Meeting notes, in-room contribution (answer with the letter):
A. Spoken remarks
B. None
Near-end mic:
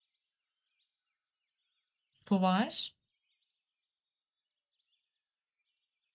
A